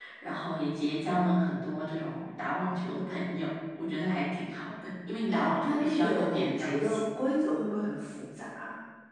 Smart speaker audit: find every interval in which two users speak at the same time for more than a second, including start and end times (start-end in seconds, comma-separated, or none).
5.2-7.0